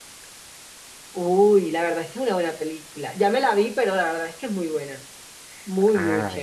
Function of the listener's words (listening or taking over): taking over